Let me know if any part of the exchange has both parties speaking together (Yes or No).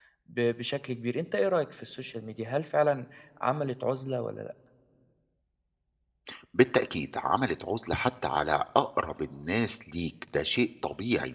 No